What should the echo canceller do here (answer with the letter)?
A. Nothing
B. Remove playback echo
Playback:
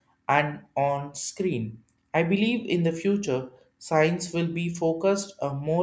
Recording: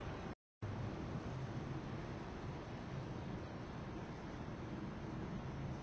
A